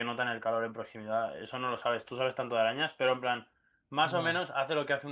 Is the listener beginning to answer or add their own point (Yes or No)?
No